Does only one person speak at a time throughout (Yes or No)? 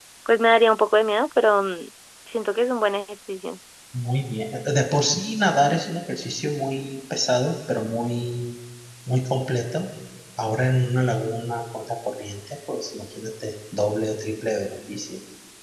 Yes